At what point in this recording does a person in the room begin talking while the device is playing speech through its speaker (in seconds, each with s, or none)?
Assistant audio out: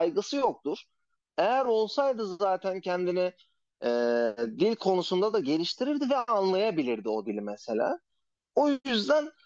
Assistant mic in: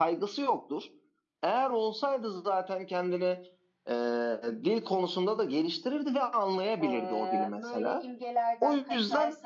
6.8 s